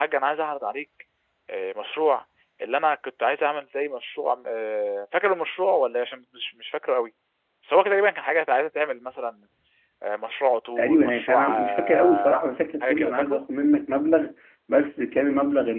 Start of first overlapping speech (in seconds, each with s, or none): 10.8 s